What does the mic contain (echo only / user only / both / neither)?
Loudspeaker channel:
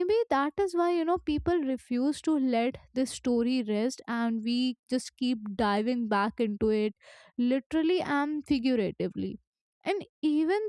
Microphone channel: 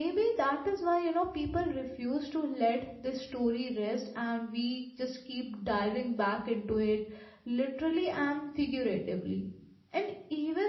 echo only